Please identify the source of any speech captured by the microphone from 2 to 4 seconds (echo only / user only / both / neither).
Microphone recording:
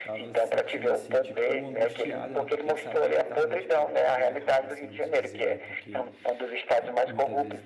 both